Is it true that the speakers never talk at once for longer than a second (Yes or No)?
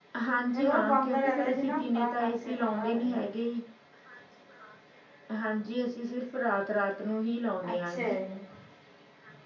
No